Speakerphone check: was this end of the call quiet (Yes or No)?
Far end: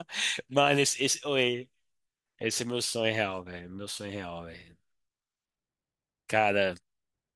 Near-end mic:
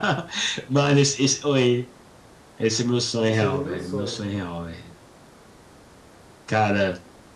No